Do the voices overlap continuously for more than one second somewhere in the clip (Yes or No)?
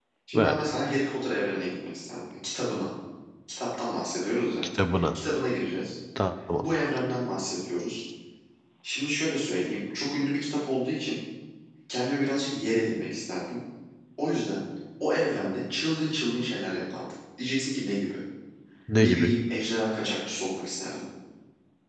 No